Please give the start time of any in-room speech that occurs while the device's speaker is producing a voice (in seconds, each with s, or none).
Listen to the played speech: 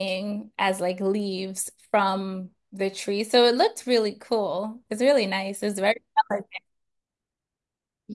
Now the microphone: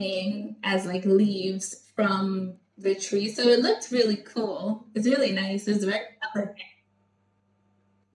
none